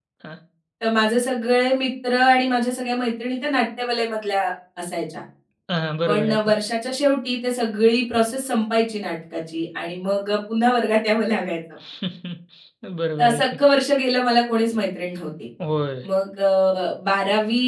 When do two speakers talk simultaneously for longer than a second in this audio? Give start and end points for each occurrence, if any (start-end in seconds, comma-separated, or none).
none